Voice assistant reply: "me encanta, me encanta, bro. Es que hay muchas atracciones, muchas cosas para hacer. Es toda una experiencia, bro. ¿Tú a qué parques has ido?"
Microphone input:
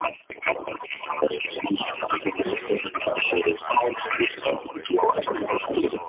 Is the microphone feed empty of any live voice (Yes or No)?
No